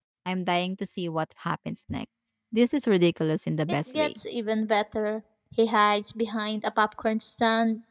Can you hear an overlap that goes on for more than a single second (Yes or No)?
No